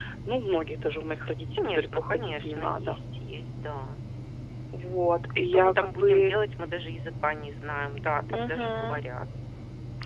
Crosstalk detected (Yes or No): Yes